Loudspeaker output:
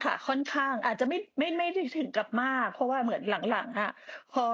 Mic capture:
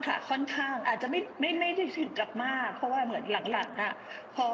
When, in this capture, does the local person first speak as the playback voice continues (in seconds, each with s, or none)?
none